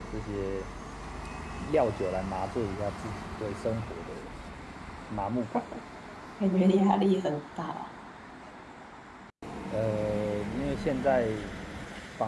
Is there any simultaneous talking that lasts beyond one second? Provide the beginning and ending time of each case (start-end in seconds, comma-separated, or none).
none